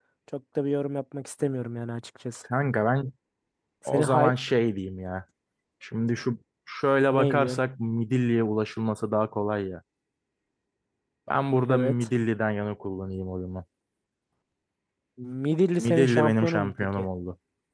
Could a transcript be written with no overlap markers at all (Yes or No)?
No